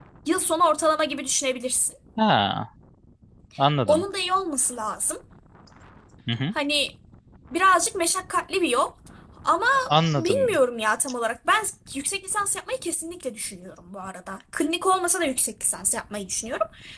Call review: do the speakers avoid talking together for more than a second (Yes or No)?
Yes